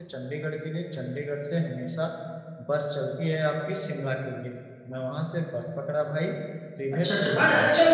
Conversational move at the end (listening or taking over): taking over